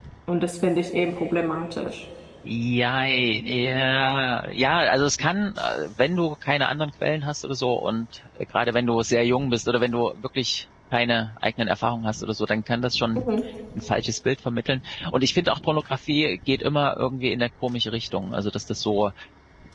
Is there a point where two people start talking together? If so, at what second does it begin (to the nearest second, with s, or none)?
none